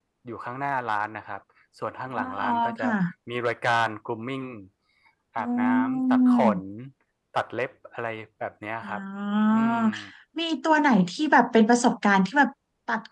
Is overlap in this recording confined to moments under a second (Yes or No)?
No